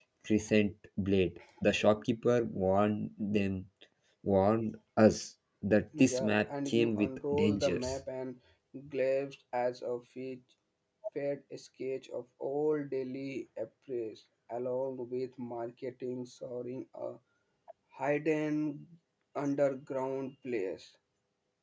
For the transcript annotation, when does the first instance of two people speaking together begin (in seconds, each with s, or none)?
5.9 s